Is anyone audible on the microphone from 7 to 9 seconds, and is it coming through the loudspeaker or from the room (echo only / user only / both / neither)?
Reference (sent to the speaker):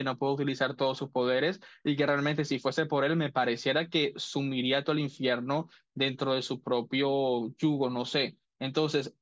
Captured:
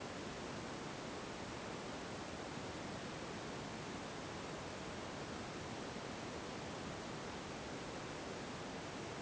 neither